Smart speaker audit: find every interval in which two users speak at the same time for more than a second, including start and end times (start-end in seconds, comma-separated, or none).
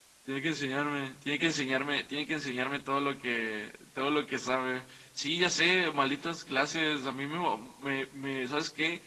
none